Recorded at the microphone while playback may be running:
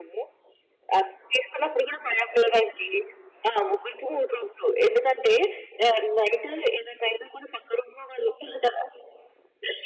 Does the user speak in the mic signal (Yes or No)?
No